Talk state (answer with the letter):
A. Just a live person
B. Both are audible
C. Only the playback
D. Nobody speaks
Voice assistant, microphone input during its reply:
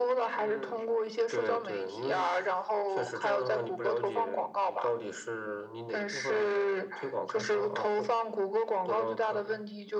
C